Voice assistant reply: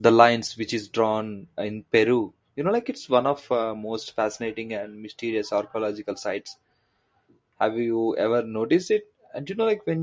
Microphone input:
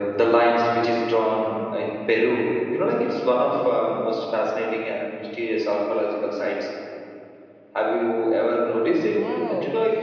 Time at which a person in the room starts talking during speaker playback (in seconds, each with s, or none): 9.1 s